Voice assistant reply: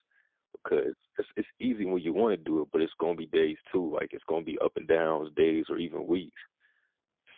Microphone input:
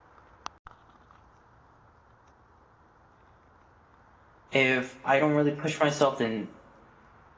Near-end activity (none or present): present